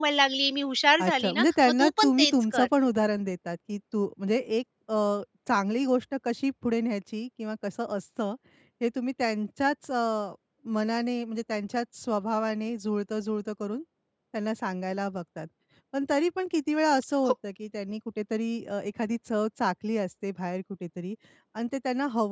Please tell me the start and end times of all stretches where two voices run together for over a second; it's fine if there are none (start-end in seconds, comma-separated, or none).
1.0-2.7